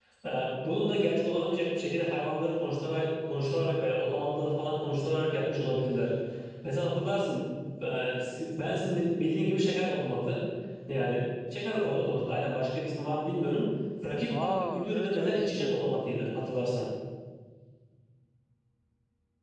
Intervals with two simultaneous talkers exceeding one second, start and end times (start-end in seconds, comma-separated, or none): 14.4-15.9